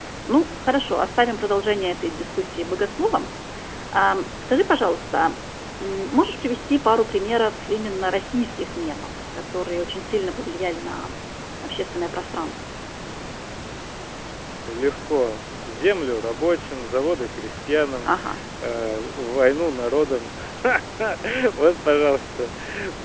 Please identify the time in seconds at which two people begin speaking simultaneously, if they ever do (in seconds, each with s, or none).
none